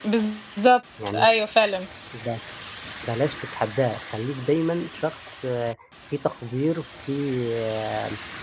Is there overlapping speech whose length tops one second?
No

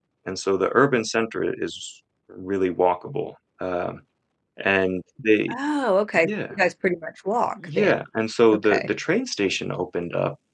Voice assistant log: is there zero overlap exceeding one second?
Yes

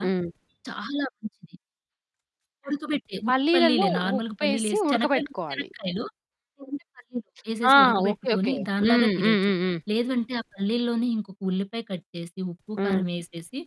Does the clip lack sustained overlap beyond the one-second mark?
No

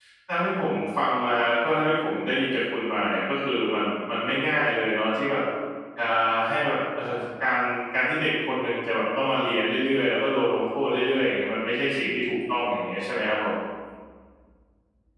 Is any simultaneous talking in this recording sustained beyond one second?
No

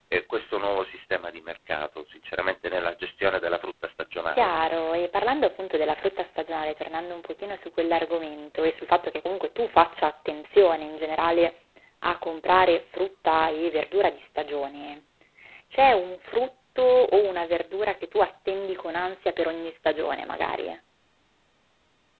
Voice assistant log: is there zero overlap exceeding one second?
Yes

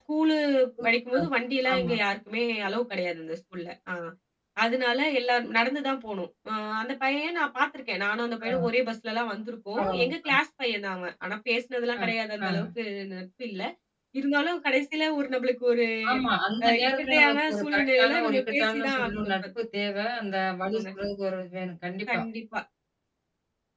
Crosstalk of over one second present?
Yes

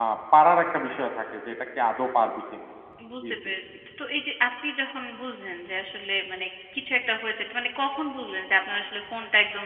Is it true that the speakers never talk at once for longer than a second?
Yes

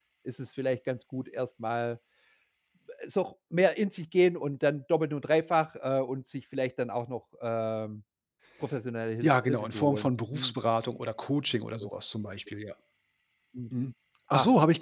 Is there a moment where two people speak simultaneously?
Yes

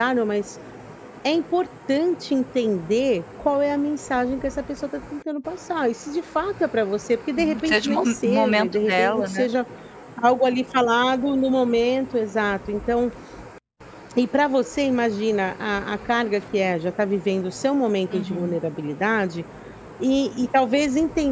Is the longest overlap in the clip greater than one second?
Yes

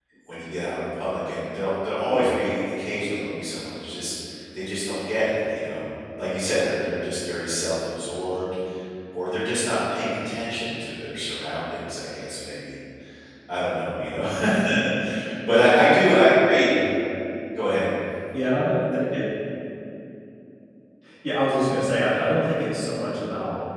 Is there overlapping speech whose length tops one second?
No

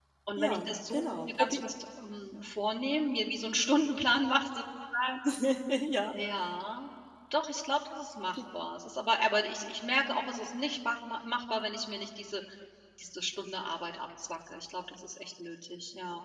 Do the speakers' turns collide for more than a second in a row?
Yes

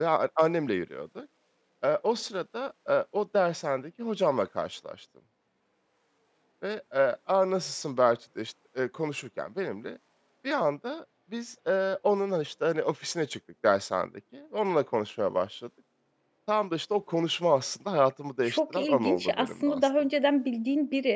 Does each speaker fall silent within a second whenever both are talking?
No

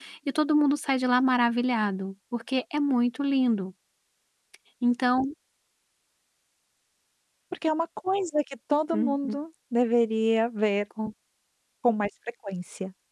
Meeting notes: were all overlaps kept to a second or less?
Yes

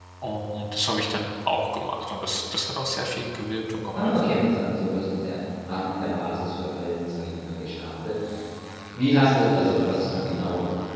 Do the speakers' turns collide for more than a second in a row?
No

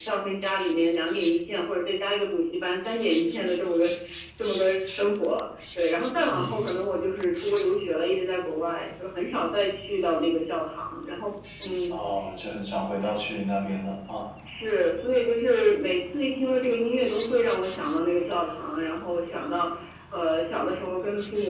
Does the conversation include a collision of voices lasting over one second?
No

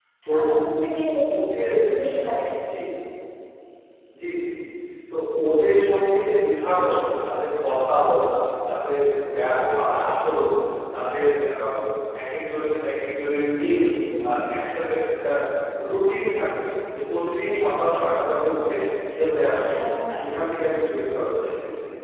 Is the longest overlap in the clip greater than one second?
No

